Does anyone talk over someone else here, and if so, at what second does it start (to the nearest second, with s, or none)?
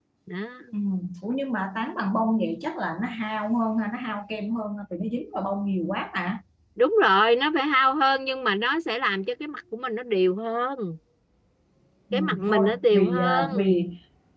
12 s